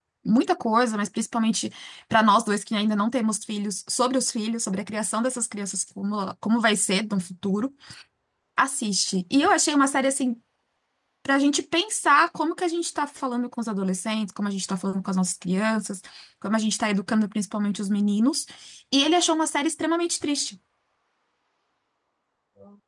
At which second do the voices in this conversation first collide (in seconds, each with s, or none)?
none